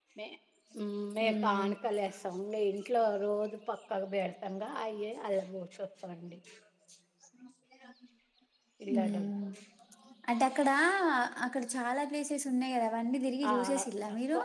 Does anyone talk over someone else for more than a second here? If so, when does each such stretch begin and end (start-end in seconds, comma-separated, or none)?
none